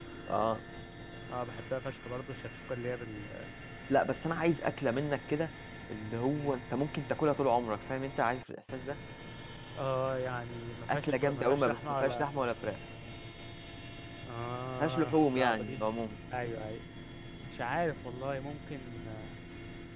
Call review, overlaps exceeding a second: present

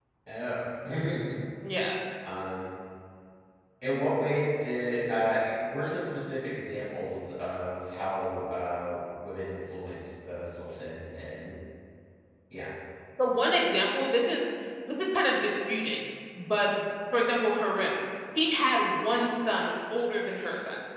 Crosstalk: none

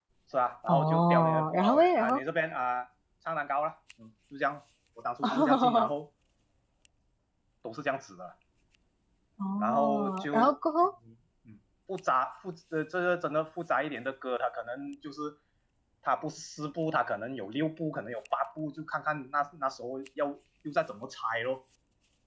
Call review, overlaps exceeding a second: present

